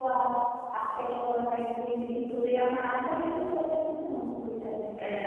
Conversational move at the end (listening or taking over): taking over